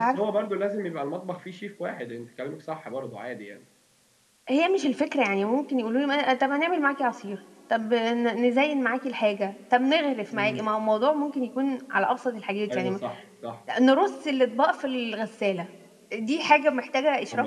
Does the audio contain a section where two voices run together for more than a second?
No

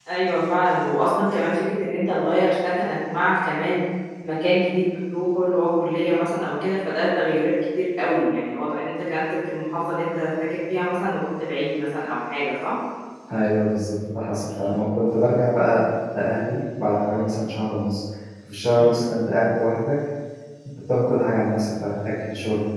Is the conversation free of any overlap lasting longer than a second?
Yes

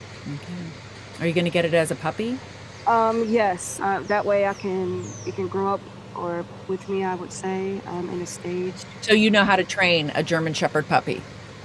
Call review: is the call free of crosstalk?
Yes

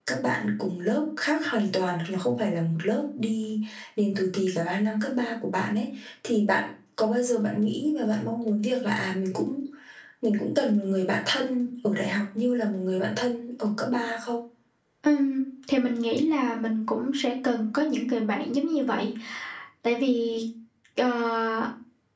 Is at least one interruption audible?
No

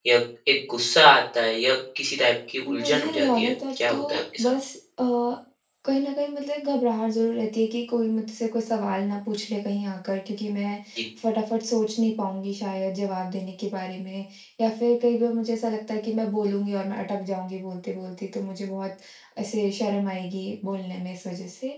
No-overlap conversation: No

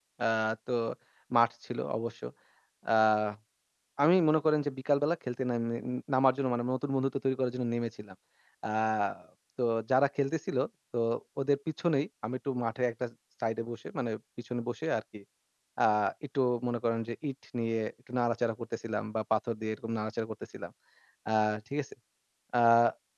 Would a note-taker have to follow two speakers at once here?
No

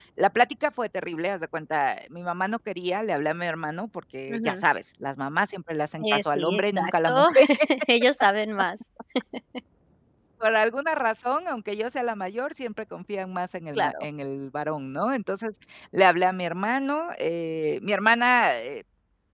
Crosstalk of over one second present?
Yes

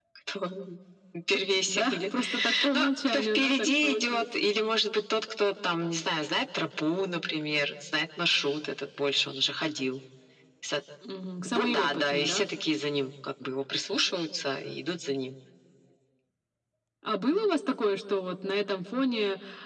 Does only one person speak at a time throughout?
No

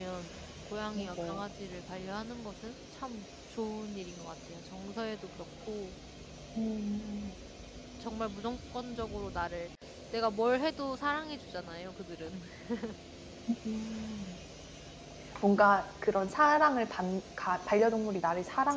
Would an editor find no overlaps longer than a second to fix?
Yes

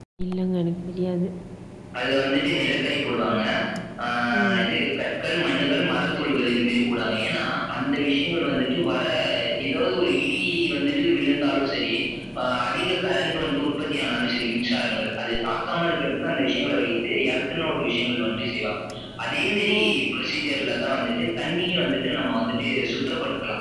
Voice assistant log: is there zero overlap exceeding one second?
Yes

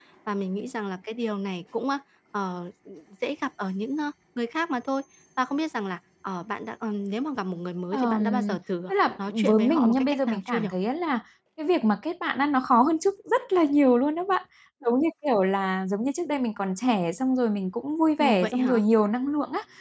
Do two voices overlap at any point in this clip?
Yes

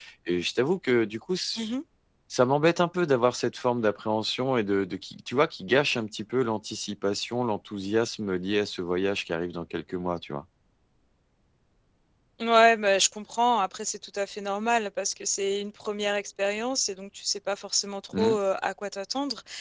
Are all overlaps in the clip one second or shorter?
Yes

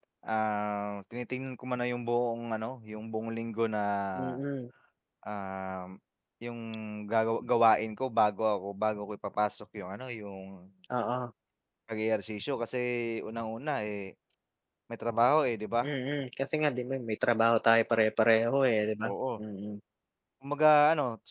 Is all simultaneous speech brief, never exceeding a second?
Yes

